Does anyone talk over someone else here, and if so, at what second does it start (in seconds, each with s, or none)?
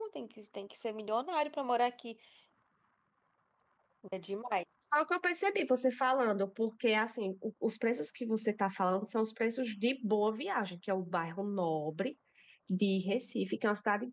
none